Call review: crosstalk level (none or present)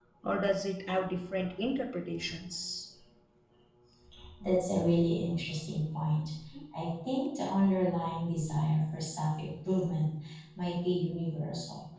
none